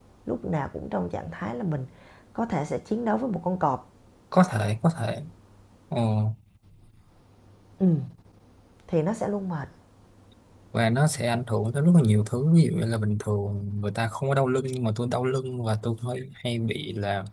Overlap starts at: none

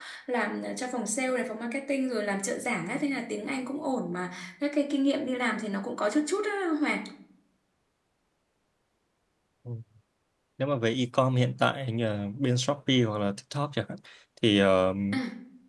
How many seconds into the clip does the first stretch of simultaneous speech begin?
none

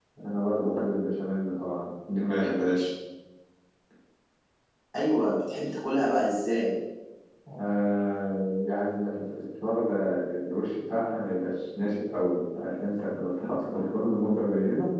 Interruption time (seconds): none

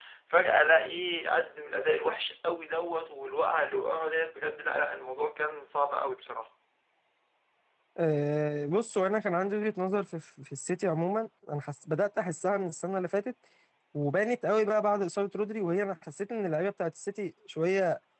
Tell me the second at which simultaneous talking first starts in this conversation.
none

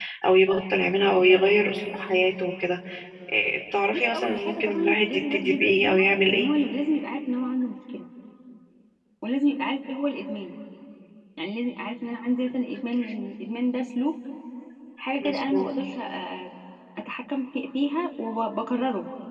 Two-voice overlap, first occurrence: 3.9 s

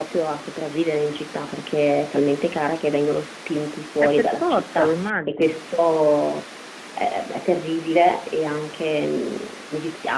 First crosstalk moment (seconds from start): 4.0 s

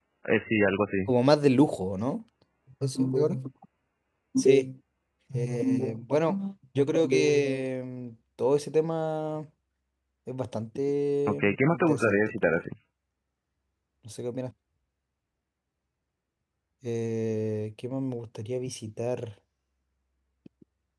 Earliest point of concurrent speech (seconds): 11.3 s

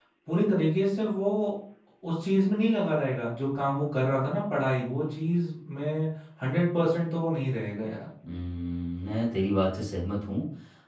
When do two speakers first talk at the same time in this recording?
none

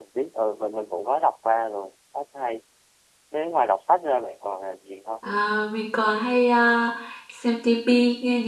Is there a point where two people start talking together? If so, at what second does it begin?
none

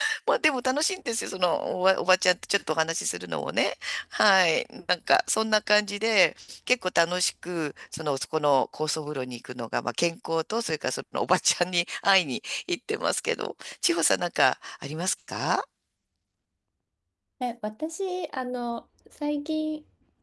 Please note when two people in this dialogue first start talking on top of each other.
none

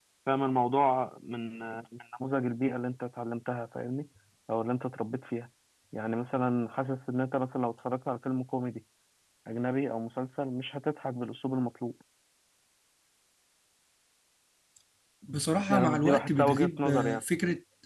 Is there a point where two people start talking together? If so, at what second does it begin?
15.7 s

